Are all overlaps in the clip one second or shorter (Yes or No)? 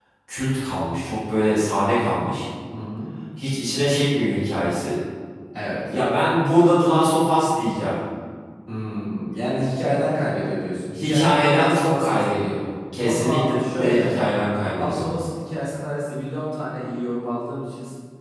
No